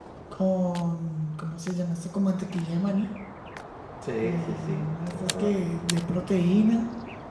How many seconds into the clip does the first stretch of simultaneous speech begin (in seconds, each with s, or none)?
4.2 s